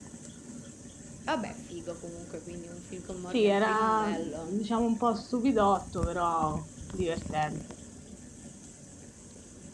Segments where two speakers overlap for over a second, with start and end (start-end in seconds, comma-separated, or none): 3.3-4.6